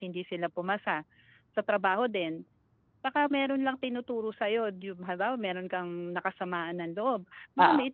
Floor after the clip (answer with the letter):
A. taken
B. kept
B